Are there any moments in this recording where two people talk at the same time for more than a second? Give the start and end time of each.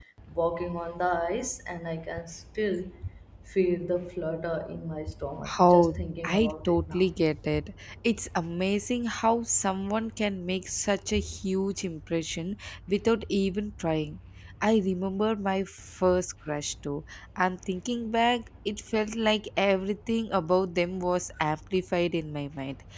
5.6-7.1

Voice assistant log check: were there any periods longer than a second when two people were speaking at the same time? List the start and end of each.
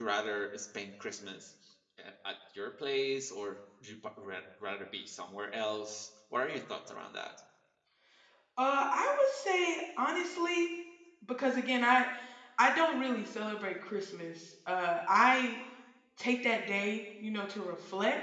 none

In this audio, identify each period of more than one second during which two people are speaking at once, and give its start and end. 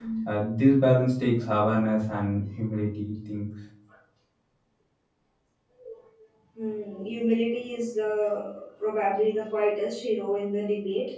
none

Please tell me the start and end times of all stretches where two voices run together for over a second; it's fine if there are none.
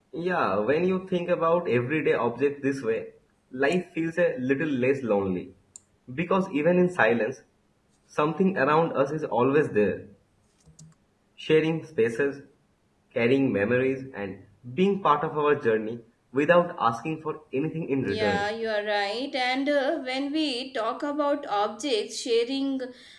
none

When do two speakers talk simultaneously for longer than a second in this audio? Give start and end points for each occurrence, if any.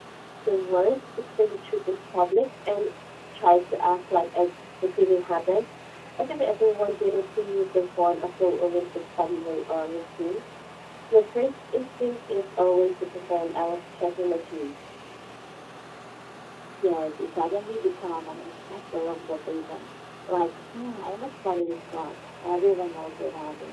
none

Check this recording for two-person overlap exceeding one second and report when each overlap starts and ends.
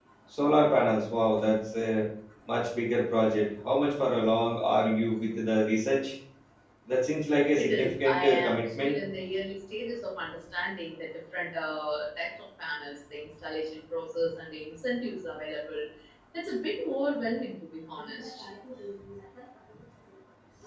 7.6-8.9

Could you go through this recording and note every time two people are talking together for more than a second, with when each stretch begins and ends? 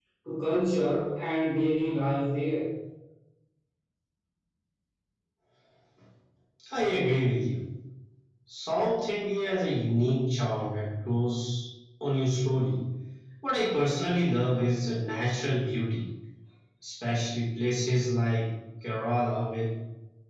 none

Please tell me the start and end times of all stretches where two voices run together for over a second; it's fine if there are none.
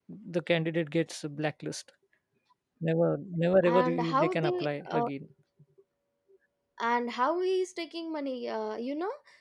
3.6-5.1

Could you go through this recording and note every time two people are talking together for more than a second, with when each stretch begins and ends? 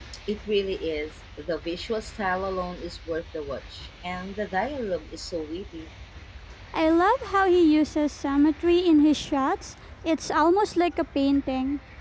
none

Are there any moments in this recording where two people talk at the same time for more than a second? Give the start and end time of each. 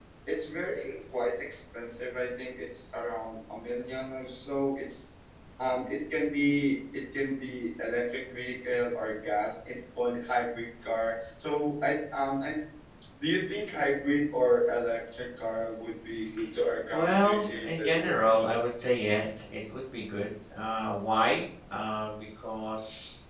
16.9-18.6

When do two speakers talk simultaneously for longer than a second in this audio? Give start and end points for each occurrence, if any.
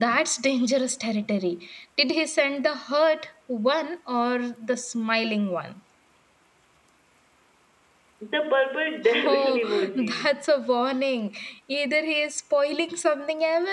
9.0-10.3

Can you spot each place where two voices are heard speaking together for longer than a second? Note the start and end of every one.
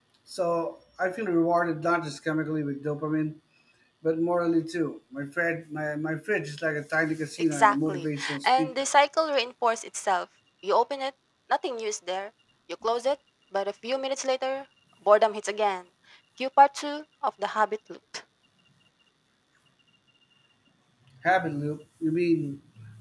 7.5-8.9

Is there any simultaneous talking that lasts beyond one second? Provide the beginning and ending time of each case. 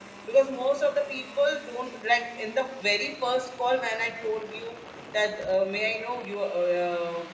none

